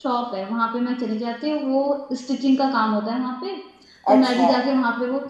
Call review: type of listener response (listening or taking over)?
listening